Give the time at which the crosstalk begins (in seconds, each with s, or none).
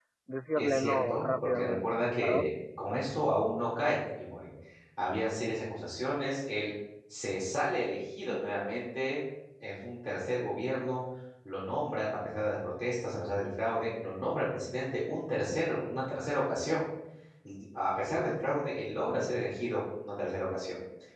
0.6 s